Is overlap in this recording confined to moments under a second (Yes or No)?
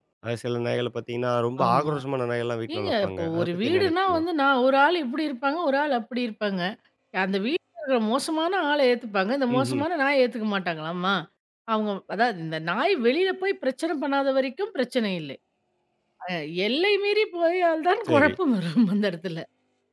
No